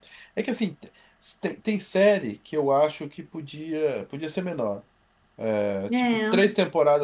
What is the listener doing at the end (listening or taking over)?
listening